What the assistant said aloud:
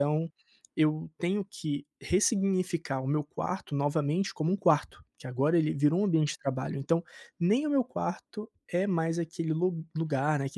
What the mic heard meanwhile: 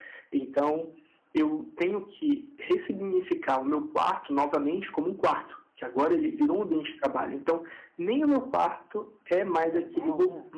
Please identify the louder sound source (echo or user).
echo